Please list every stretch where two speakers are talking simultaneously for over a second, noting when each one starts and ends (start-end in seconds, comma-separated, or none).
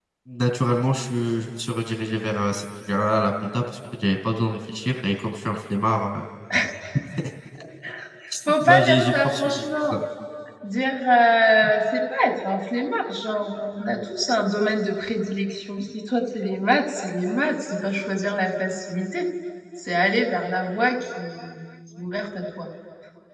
8.6-9.9